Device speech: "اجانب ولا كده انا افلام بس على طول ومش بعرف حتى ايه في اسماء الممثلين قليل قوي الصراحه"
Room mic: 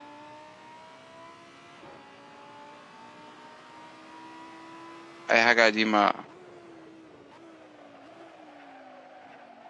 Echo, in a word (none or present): none